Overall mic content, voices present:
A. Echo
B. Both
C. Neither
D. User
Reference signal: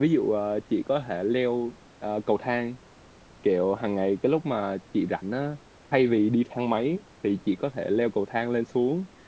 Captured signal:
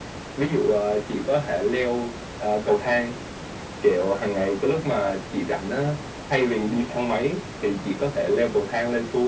A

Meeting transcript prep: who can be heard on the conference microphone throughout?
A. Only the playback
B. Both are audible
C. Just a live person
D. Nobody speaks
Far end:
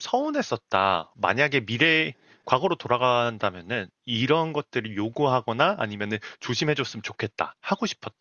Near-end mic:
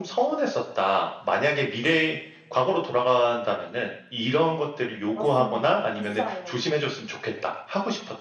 B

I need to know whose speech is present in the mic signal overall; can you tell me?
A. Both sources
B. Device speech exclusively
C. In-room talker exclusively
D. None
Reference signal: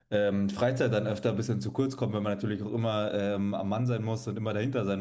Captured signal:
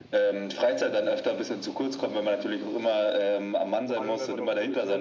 A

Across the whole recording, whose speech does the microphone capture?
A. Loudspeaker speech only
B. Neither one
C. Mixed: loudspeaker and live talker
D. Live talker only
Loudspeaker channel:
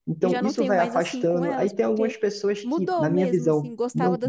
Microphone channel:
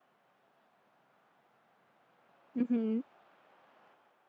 D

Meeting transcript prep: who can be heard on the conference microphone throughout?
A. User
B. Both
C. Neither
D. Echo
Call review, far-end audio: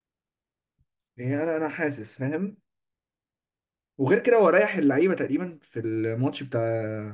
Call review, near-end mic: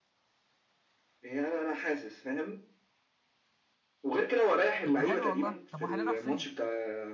B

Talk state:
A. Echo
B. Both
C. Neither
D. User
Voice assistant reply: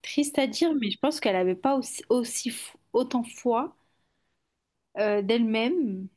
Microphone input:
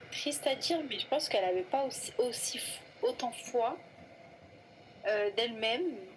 A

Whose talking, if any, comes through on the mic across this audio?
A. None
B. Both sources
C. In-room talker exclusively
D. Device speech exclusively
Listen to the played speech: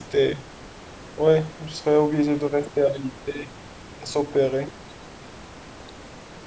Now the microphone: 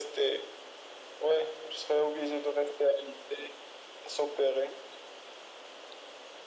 D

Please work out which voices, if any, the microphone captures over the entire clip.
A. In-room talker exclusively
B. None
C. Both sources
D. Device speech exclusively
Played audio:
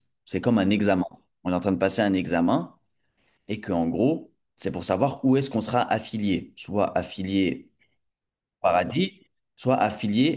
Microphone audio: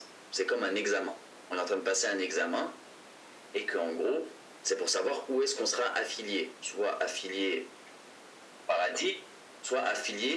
D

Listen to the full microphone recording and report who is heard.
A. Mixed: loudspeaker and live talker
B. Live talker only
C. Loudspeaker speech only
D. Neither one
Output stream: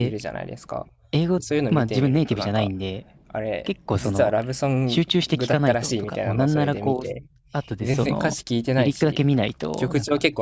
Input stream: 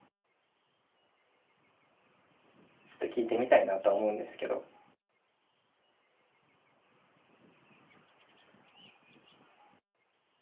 B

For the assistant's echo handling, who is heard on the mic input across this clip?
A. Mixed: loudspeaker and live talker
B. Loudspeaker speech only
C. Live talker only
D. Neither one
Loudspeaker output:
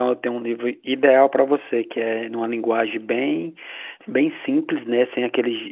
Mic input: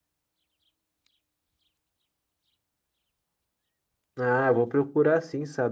C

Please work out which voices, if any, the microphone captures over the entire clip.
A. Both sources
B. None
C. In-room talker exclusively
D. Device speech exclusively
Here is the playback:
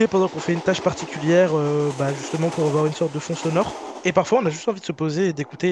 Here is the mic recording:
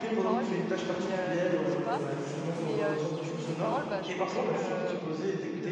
A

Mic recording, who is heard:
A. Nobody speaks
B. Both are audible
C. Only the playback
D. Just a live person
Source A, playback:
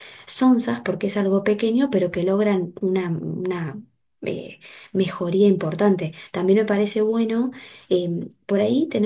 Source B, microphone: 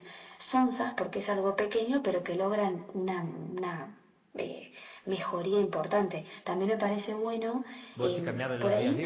B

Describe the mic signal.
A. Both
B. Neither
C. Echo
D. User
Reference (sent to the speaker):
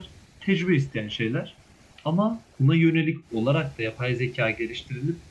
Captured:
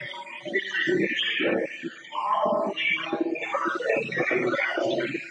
C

